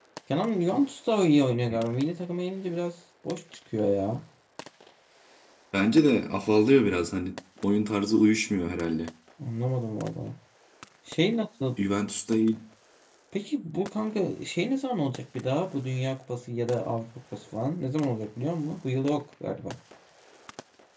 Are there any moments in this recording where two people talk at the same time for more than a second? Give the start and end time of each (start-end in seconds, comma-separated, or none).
none